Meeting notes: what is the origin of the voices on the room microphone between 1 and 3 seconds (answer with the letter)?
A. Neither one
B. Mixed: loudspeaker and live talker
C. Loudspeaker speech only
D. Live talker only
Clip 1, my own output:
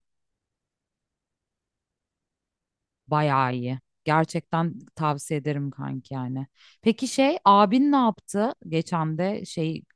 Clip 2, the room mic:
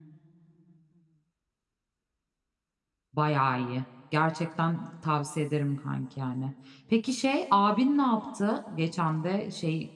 A